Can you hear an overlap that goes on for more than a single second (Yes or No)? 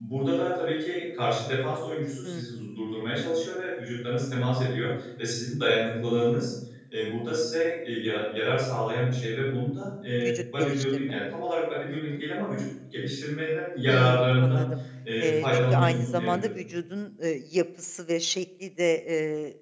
Yes